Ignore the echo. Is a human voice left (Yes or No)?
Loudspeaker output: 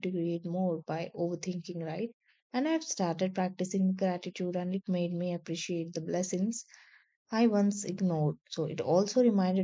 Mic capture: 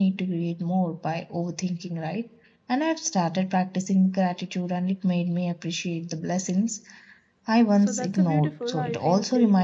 Yes